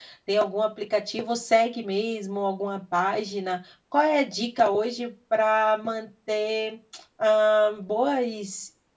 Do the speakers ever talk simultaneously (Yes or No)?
No